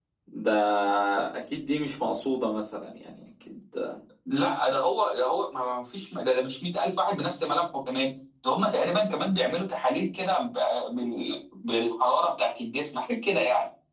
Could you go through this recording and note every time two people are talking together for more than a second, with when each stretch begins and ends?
none

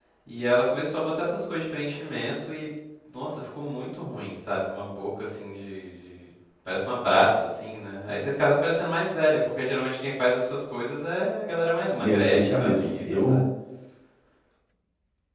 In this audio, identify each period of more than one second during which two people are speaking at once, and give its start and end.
12.0-13.4

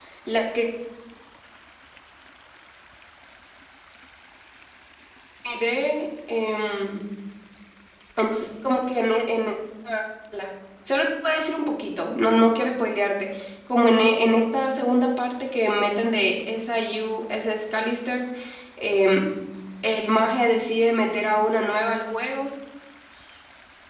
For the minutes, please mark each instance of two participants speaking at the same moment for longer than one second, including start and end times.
none

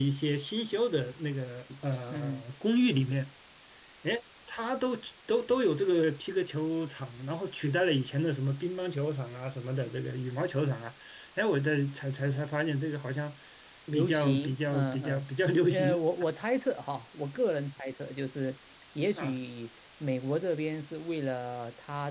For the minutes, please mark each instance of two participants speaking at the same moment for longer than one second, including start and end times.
13.9-15.2

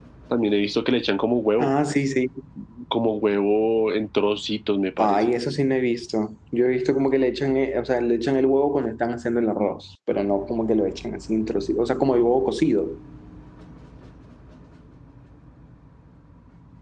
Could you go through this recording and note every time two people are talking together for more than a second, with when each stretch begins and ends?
none

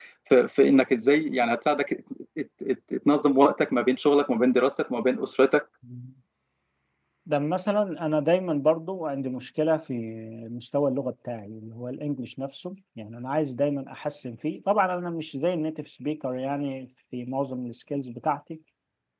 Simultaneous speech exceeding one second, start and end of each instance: none

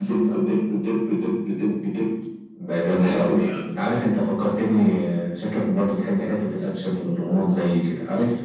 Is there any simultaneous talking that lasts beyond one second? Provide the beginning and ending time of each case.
none

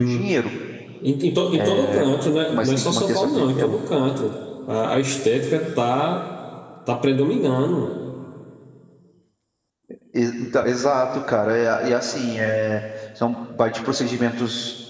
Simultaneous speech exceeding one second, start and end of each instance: 2.5-3.8

